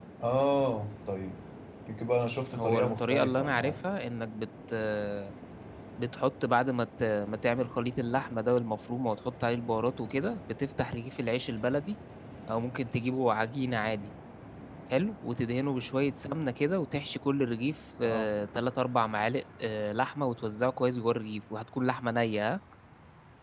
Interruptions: present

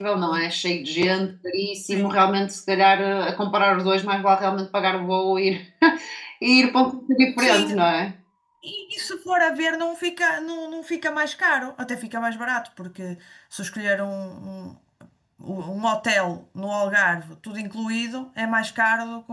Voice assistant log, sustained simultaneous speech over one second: none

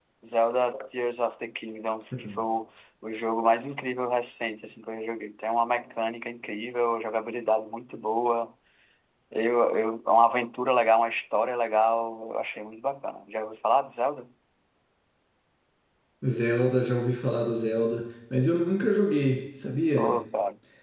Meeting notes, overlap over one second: none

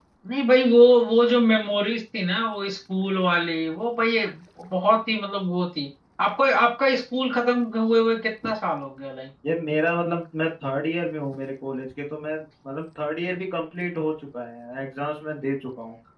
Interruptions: none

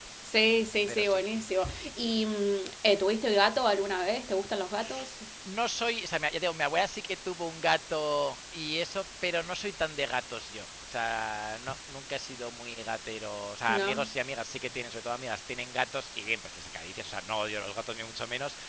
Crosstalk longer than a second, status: none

